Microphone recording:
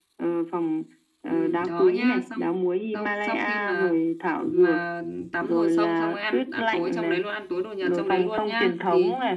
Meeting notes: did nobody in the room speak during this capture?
No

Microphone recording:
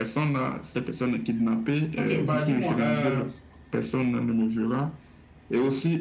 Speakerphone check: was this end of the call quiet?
No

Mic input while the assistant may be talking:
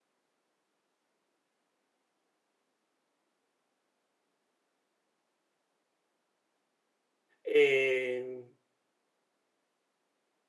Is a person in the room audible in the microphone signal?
Yes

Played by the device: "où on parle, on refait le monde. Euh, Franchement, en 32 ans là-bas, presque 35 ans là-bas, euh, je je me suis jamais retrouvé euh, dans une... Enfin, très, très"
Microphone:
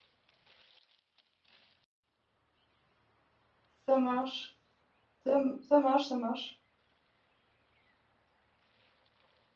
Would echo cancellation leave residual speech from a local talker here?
Yes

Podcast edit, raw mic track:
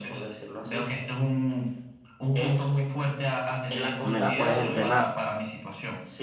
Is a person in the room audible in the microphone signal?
Yes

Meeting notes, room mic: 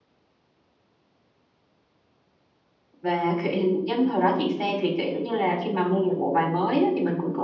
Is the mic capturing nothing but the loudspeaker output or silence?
No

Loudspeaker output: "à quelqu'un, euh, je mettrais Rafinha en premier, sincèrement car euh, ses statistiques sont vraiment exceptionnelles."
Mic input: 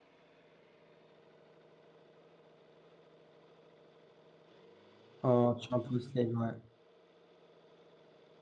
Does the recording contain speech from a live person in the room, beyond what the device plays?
Yes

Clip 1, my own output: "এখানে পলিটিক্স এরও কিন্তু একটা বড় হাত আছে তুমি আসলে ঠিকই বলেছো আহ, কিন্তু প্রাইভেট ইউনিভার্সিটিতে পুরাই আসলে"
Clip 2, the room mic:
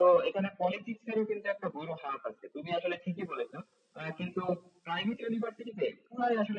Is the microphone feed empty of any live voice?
Yes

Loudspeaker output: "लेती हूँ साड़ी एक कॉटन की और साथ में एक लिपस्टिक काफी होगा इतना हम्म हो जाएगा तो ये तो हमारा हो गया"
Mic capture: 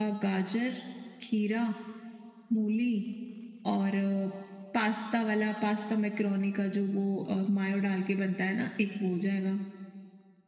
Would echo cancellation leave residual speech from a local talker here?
Yes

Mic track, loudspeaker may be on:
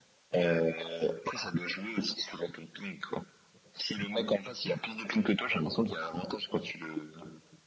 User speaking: No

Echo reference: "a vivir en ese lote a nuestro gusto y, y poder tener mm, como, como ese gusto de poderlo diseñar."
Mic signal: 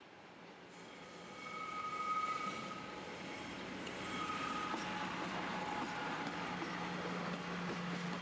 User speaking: No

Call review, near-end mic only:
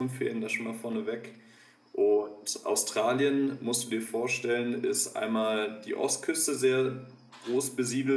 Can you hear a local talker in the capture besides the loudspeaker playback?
Yes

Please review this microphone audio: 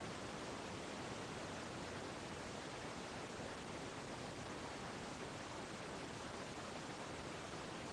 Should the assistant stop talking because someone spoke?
No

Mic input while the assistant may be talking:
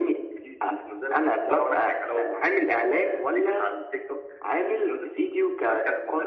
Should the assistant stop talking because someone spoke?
No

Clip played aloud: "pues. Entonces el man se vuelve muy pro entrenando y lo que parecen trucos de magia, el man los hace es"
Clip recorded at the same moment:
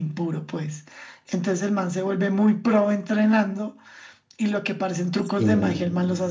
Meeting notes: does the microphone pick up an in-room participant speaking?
Yes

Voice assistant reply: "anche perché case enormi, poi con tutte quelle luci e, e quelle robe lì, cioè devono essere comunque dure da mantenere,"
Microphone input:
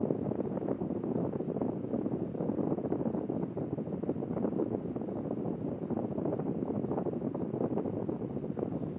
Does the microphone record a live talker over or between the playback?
No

